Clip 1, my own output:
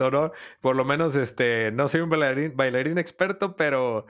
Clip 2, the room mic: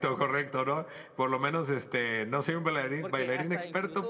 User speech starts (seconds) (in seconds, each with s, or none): 3.0 s